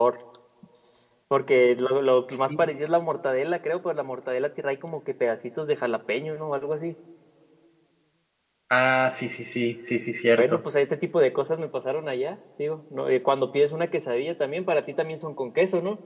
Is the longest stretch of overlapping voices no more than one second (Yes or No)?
Yes